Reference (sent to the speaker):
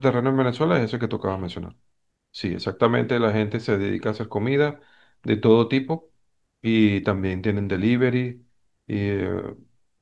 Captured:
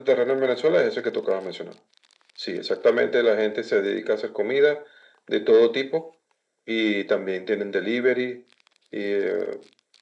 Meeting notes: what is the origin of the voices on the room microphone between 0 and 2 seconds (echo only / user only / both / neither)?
echo only